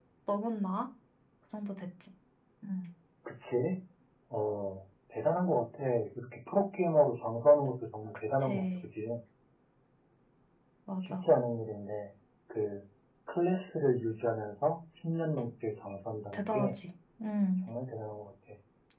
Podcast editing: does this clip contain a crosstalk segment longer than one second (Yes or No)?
No